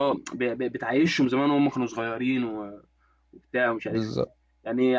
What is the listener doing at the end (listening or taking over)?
listening